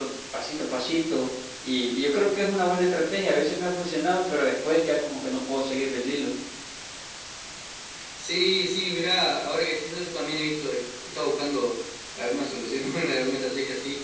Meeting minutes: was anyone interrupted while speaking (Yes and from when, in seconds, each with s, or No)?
No